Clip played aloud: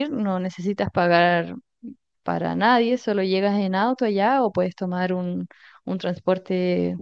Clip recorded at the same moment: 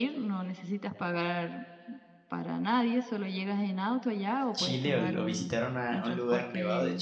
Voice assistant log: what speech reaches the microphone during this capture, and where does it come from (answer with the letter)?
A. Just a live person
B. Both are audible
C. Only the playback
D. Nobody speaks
B